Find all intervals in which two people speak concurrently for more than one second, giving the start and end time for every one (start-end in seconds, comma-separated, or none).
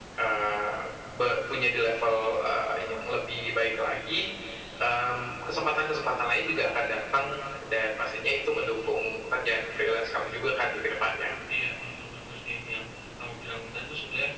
none